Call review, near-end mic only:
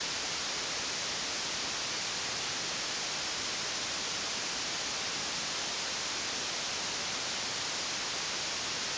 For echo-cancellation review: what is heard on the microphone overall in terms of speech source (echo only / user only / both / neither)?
neither